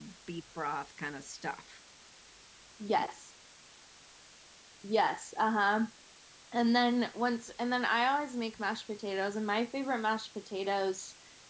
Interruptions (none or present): none